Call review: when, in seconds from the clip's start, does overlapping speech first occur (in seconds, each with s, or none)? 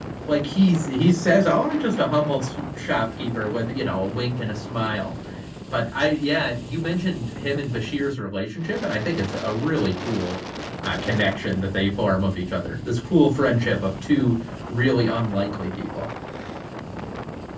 none